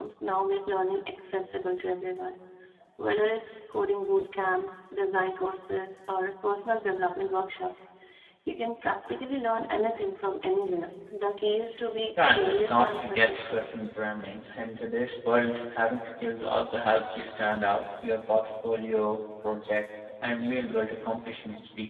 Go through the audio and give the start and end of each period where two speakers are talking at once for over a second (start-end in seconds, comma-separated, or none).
12.3-13.7